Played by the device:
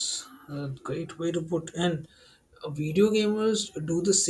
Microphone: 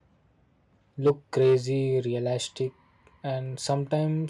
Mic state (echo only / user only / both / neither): user only